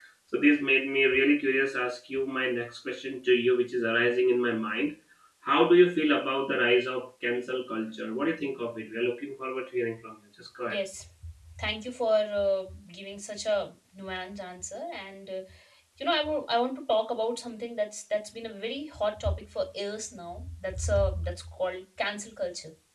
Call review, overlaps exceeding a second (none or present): none